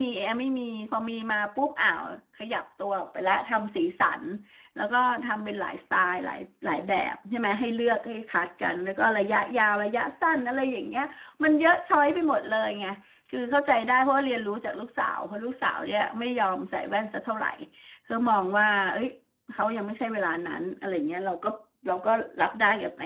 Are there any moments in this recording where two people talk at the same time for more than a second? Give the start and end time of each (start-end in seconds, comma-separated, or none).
none